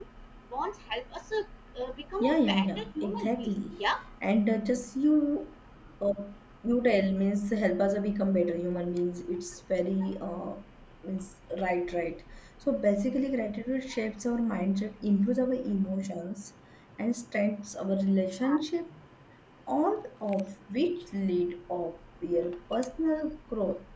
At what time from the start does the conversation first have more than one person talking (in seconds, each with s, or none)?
2.2 s